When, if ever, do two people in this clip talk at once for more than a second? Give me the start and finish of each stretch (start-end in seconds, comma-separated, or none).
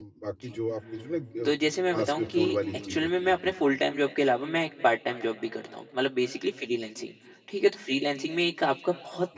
1.9-3.4